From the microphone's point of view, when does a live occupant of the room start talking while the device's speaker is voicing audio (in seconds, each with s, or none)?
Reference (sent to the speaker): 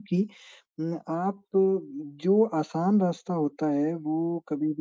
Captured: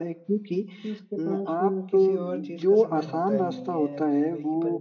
0.8 s